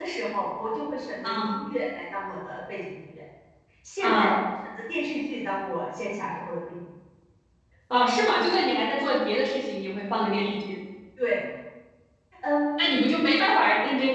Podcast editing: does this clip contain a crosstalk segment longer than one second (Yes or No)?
No